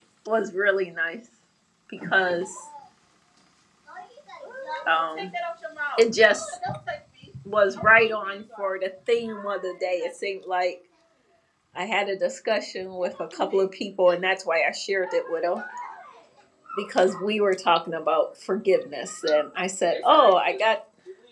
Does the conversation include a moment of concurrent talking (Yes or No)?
No